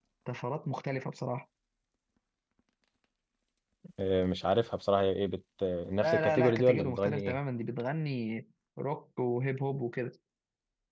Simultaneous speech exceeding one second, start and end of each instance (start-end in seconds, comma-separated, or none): 6.0-7.4